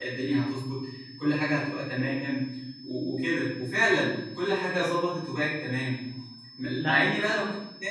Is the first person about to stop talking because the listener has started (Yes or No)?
No